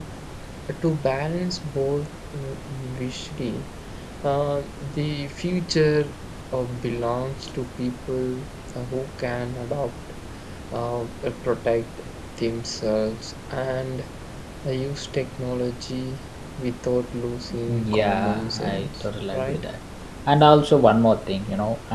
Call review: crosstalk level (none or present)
present